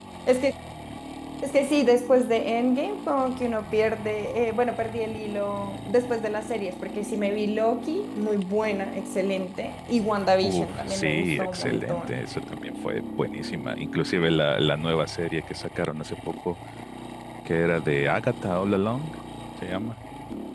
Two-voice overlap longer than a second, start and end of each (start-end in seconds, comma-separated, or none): 10.4-12.2